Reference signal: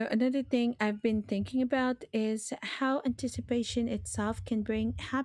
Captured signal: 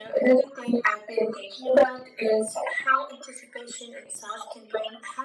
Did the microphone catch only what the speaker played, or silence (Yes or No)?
Yes